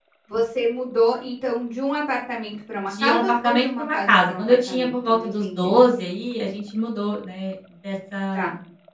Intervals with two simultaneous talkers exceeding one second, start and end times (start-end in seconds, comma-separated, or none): 2.9-5.7